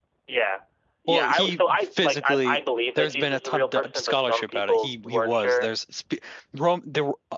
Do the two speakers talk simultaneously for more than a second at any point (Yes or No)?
Yes